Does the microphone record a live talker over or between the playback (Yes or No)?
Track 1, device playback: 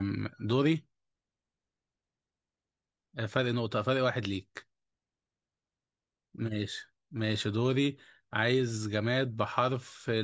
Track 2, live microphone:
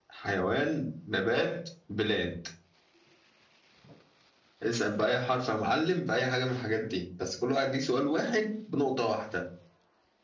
Yes